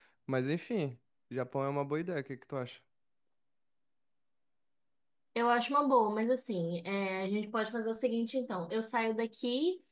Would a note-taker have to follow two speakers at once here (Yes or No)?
No